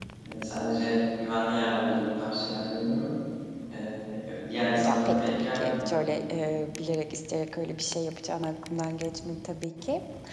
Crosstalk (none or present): present